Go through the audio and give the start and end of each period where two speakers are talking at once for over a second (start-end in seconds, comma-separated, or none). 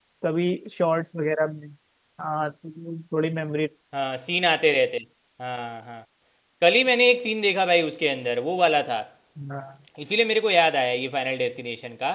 none